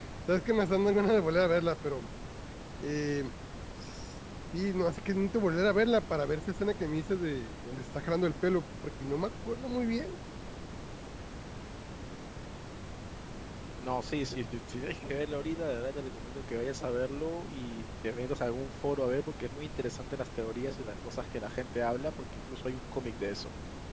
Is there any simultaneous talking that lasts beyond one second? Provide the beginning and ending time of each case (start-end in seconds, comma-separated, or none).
none